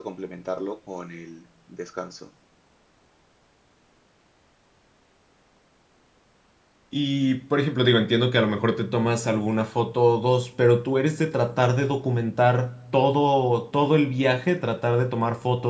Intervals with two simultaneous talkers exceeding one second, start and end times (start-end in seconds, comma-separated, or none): none